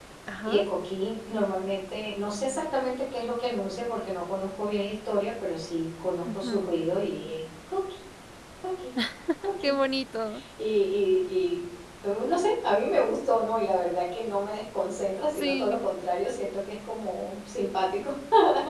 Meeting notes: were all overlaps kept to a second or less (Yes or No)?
Yes